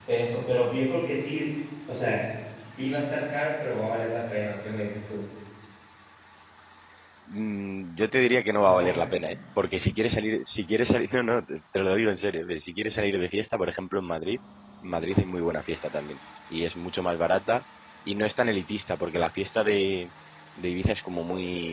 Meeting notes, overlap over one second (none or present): none